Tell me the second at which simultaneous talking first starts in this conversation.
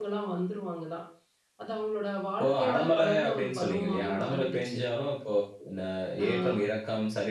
2.4 s

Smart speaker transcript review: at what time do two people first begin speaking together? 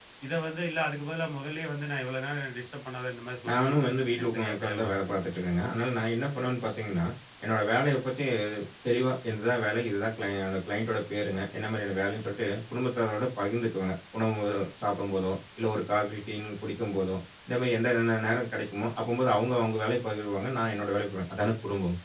3.4 s

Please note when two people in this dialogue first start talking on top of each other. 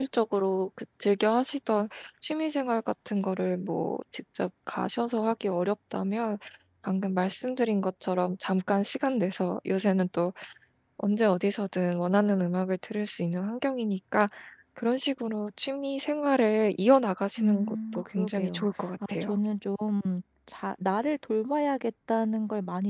17.4 s

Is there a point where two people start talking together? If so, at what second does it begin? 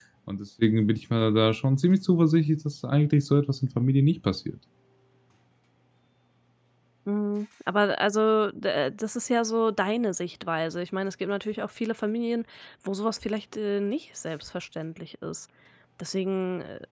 none

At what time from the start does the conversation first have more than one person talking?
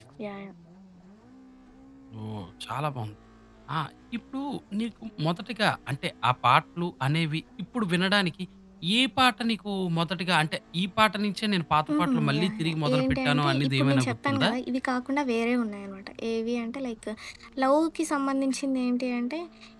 11.9 s

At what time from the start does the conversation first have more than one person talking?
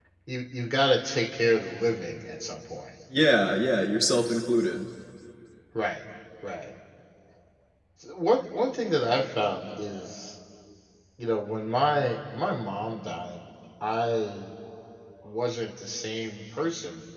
none

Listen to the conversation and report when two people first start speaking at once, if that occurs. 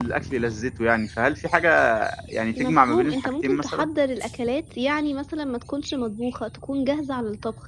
2.5 s

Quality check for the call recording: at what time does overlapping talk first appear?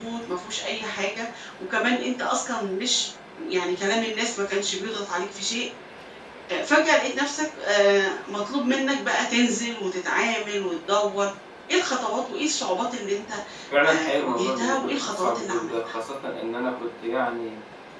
13.8 s

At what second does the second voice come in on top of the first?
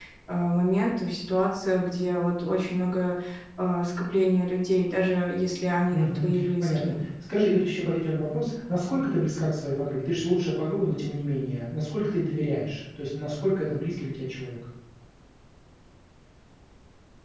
5.8 s

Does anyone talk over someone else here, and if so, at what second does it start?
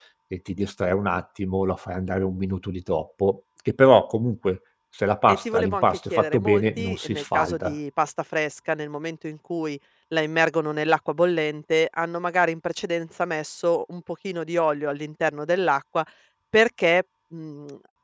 5.3 s

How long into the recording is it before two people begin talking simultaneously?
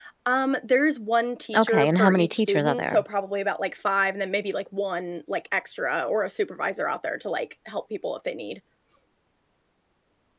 1.5 s

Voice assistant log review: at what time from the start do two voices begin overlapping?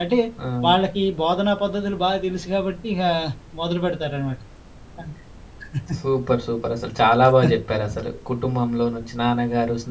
none

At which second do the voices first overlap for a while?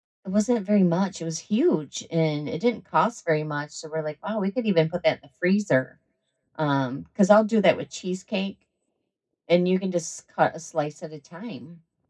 none

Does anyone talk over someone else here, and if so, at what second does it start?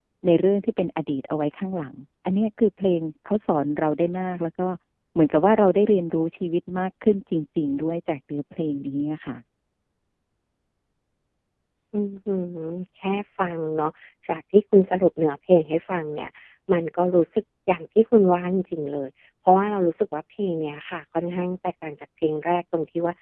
none

